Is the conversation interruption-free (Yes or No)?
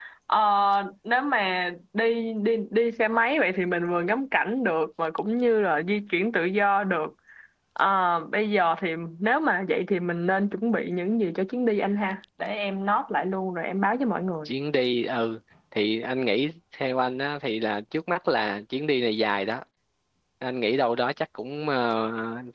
Yes